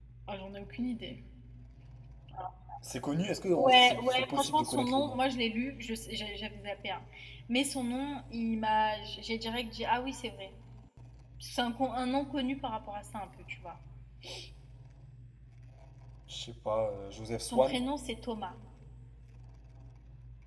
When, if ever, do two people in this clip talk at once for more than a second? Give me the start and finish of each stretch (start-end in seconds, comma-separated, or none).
3.6-5.2